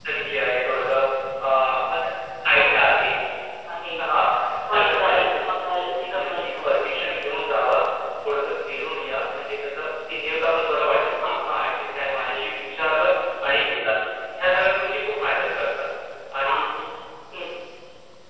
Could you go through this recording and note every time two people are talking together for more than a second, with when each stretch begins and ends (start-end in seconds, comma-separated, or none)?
4.7-7.0